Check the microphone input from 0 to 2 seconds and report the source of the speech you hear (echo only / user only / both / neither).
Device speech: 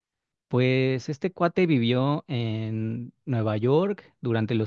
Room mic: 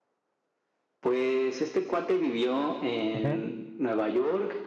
echo only